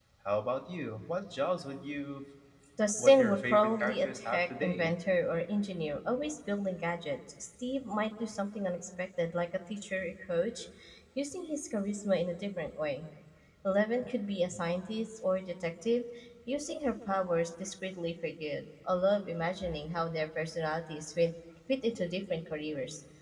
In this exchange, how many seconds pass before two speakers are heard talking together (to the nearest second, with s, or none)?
3 s